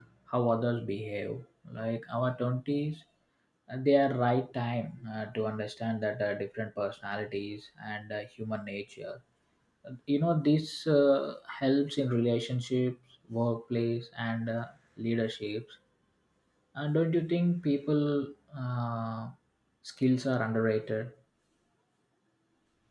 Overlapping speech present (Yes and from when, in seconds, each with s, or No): No